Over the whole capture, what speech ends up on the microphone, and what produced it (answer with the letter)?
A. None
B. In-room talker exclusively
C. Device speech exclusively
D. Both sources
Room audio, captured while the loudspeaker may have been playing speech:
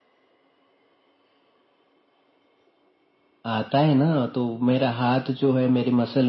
C